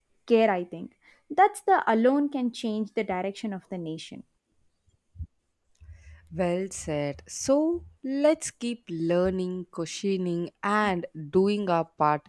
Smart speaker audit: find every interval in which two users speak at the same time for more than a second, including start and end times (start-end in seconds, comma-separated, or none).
none